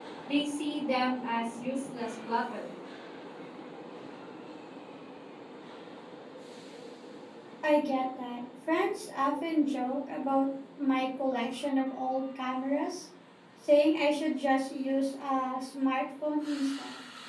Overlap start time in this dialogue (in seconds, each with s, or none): none